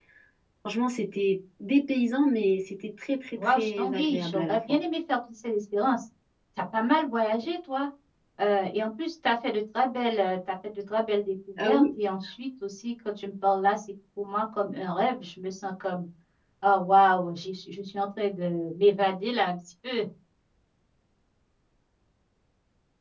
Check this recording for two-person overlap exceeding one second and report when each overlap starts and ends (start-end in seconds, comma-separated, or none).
3.4-4.6